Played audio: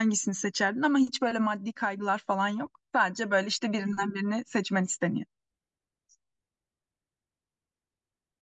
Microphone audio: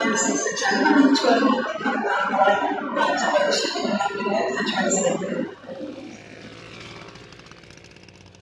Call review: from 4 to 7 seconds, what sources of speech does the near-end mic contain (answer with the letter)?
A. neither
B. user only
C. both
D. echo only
D